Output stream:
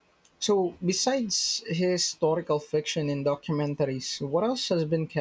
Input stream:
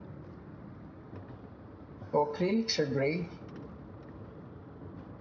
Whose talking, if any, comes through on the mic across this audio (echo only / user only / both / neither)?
user only